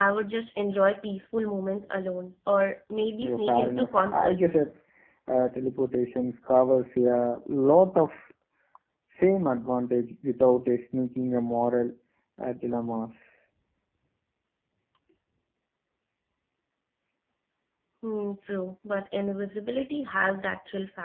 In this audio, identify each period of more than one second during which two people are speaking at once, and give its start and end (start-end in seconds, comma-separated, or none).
3.2-4.6